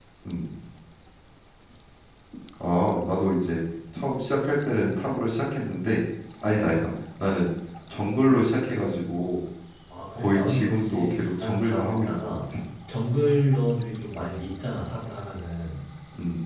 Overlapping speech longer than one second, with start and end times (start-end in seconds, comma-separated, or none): 10.2-12.6